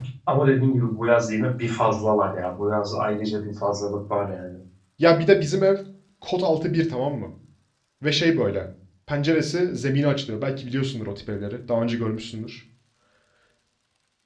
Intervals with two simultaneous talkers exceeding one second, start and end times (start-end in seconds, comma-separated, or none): none